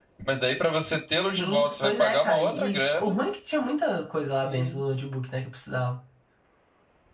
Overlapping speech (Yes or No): Yes